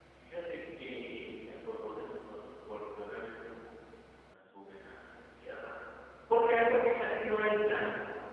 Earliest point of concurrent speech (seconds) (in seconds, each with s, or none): none